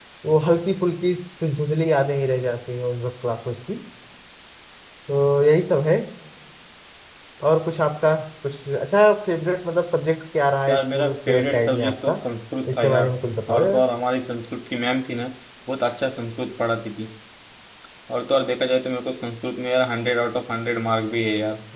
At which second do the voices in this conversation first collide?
10.7 s

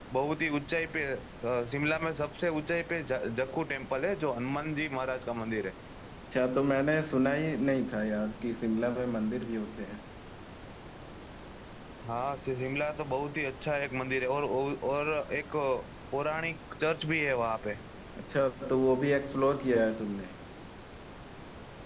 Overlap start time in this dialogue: none

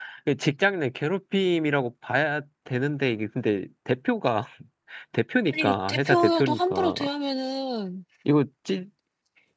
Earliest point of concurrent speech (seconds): 5.5 s

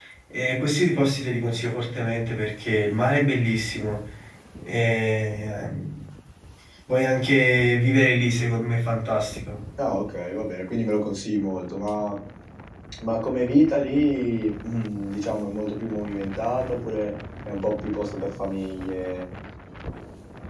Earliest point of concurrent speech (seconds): none

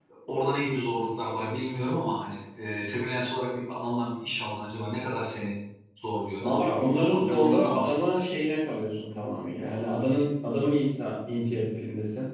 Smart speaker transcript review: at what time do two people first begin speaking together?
6.4 s

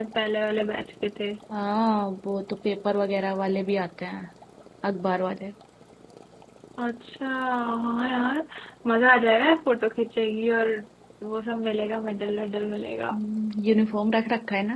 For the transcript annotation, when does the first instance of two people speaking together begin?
none

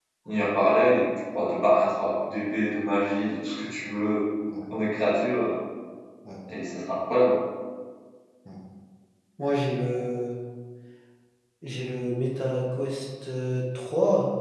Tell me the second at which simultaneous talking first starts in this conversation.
none

